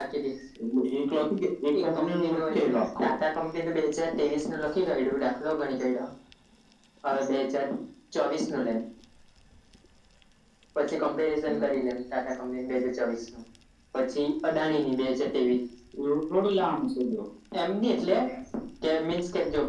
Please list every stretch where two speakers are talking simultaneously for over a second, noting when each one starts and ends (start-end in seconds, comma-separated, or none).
1.8-3.1